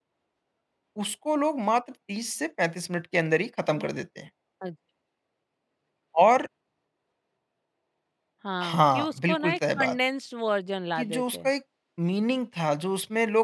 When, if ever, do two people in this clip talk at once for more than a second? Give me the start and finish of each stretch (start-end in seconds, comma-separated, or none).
8.6-10.0